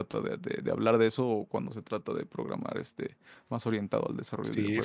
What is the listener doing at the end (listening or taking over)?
taking over